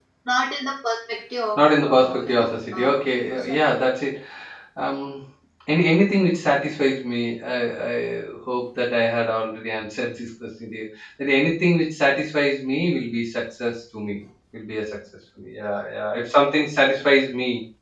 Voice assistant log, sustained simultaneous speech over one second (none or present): present